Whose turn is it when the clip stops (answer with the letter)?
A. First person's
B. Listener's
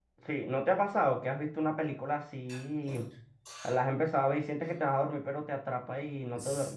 B